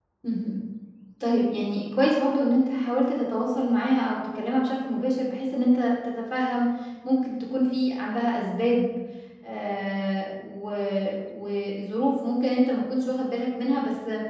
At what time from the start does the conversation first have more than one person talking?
none

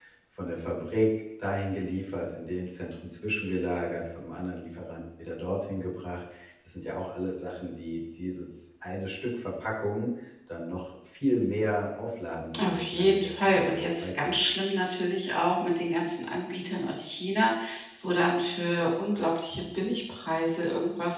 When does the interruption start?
13 s

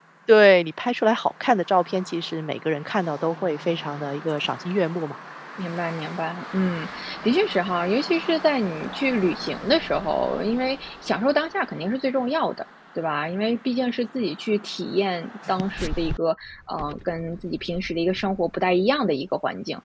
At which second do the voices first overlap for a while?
none

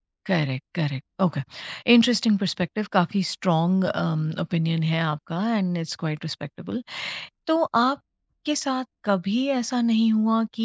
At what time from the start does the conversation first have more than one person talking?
none

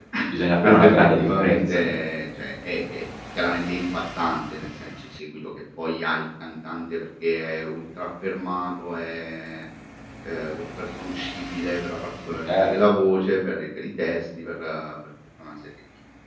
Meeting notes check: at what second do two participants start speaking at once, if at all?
1 s

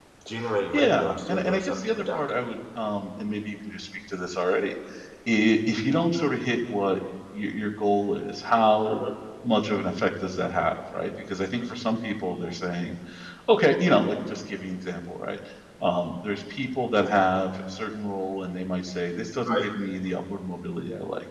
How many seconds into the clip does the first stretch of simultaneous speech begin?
1 s

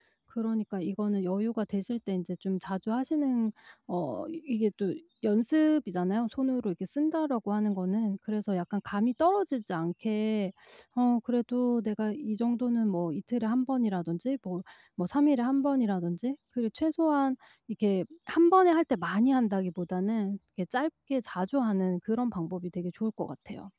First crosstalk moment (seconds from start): none

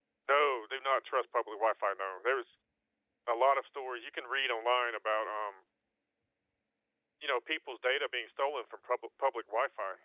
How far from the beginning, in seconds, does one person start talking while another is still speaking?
none

